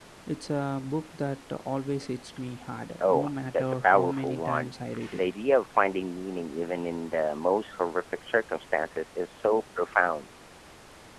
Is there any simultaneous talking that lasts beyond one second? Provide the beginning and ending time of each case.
3.0-4.7

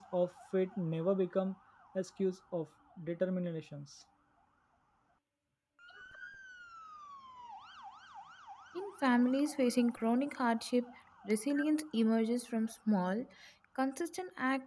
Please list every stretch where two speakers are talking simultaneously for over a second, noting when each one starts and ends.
none

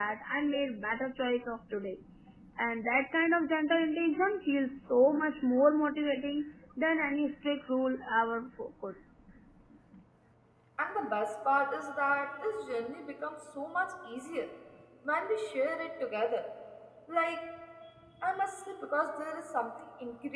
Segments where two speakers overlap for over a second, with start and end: none

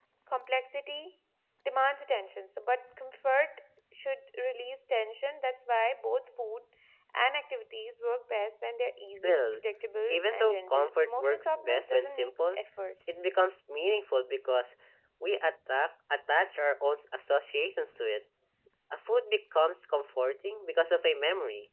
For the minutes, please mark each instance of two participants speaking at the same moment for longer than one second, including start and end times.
10.1-12.6

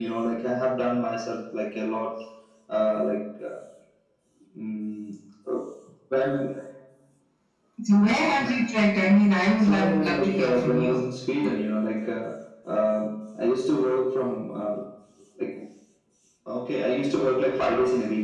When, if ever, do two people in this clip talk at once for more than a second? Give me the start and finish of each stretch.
9.6-11.0

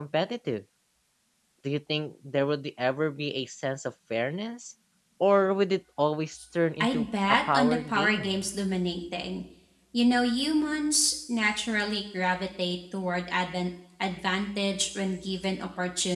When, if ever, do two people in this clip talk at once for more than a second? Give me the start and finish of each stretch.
6.8-8.4

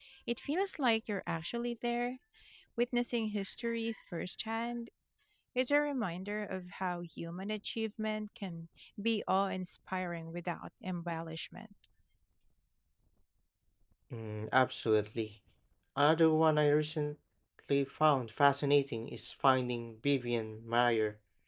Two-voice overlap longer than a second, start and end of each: none

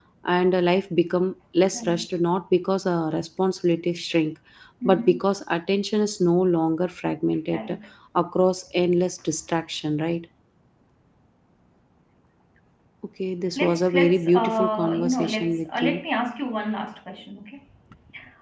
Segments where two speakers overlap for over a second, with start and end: 13.6-16.0

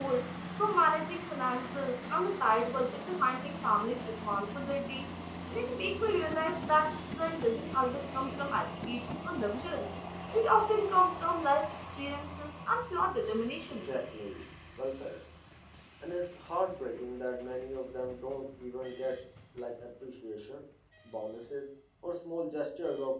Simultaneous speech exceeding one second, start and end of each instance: none

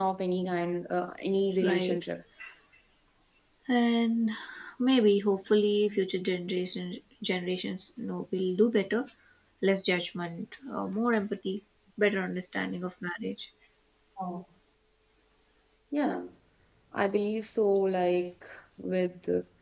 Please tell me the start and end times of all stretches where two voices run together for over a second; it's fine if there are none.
none

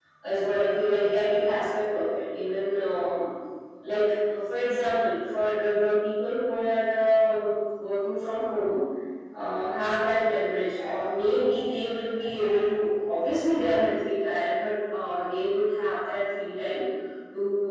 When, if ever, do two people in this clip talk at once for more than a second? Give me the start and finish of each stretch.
none

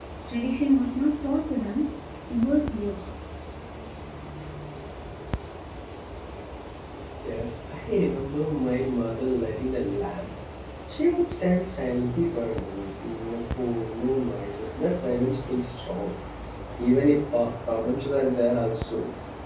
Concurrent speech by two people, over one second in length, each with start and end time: none

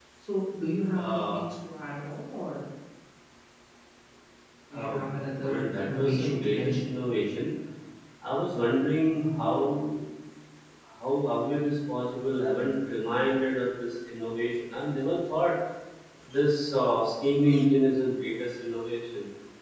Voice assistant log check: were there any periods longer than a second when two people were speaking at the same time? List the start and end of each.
5.4-6.9

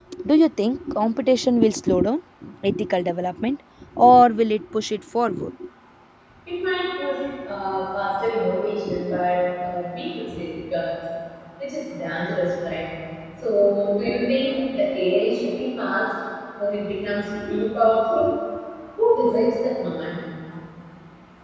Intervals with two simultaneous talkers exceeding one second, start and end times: none

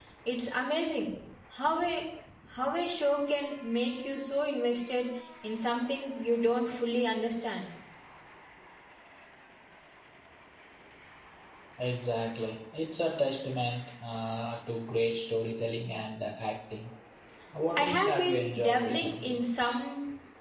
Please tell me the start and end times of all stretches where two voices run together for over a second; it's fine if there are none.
17.8-19.4

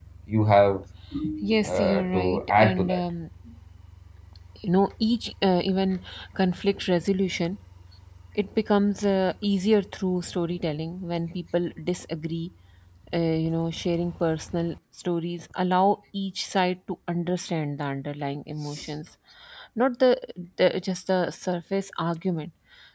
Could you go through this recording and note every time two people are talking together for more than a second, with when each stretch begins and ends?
1.7-3.0

